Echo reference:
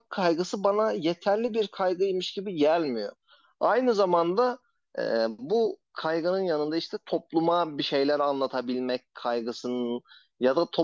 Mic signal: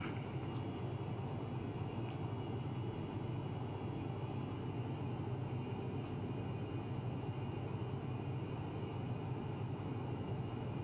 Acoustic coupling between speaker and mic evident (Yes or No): No